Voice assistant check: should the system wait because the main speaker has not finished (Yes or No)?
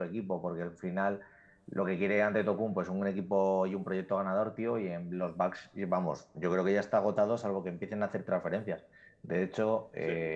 Yes